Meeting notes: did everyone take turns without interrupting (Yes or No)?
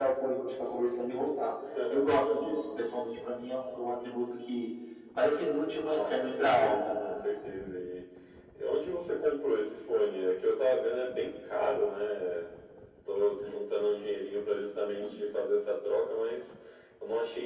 No